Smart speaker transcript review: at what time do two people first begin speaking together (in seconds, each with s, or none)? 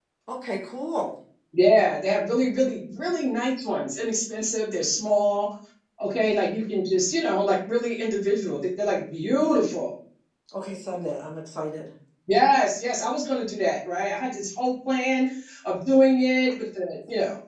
none